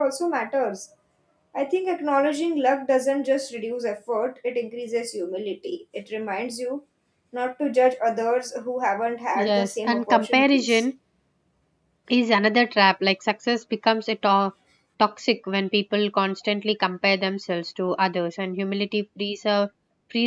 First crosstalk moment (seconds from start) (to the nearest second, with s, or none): 9 s